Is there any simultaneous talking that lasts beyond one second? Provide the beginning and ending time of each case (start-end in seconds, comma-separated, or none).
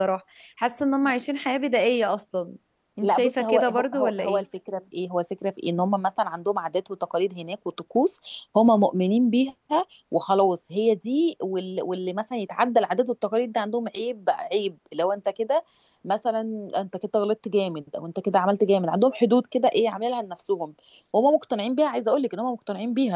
3.0-4.4